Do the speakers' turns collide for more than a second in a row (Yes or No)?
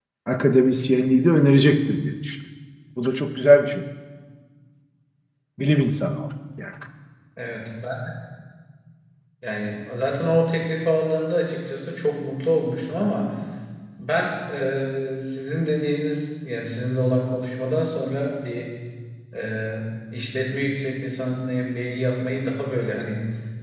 No